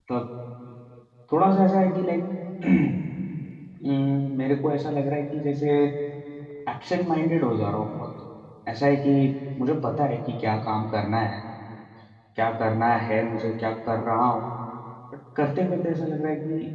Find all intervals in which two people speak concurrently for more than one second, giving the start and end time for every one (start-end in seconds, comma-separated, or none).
none